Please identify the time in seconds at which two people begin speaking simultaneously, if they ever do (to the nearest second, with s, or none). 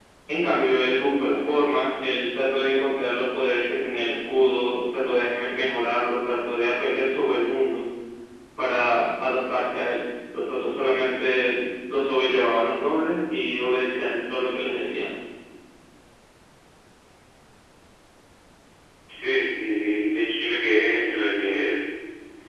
none